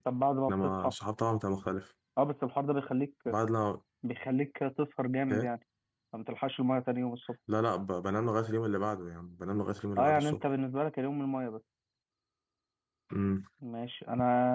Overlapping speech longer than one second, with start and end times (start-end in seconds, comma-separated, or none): none